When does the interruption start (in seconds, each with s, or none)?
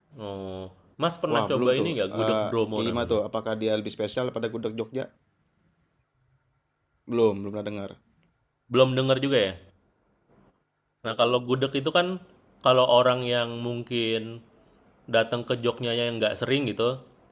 1.3 s